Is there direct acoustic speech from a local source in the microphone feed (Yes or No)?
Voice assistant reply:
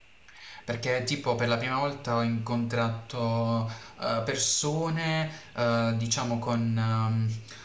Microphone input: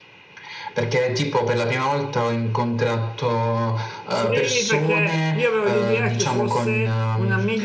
Yes